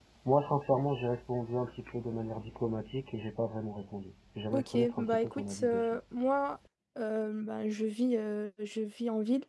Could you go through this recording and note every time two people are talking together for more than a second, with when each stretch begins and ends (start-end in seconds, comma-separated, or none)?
4.5-6.0